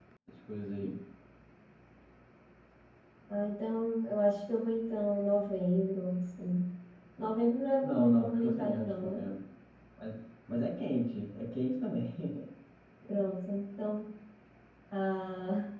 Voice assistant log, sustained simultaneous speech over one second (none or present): present